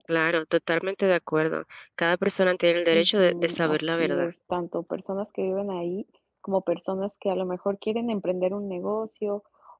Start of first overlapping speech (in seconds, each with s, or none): 2.9 s